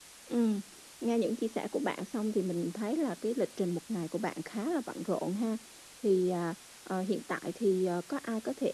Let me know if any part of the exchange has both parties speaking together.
No

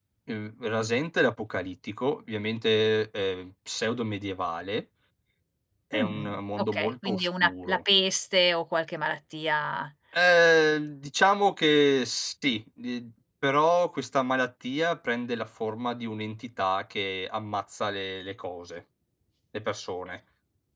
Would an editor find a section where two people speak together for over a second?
Yes, from 5.9 s

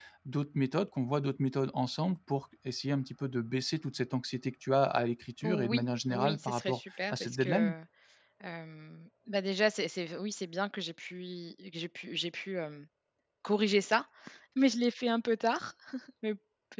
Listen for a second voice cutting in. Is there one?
Yes, from 5.4 s

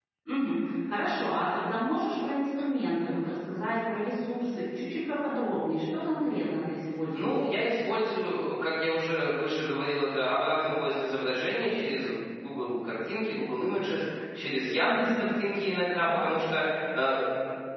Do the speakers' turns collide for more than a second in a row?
No

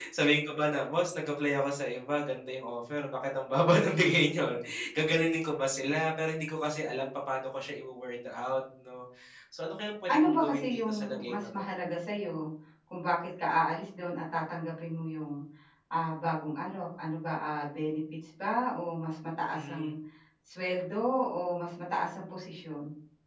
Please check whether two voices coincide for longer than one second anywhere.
Yes, from 10.1 s

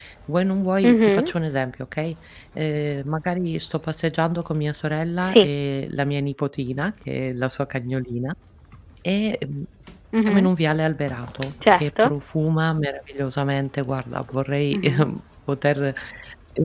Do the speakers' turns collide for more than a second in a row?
No

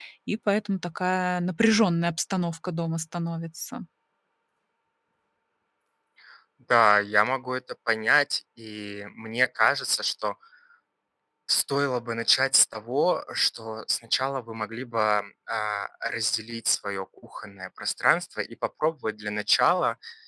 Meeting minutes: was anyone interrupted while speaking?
No

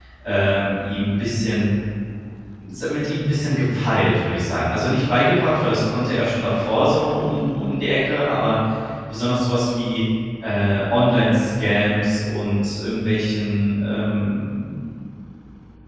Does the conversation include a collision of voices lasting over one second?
No

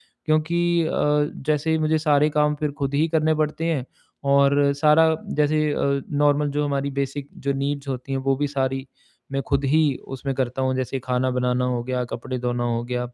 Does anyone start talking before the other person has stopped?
No

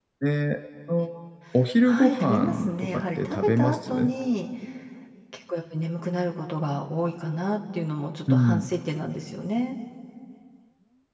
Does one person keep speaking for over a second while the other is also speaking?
Yes, from 1.9 s

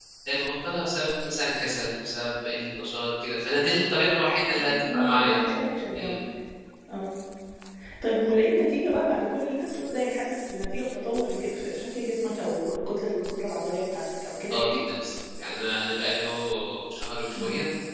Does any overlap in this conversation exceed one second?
No

